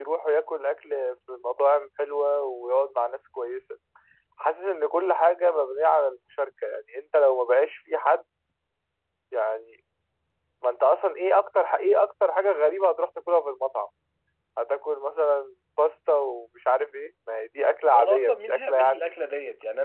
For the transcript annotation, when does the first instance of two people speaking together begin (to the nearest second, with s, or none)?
18 s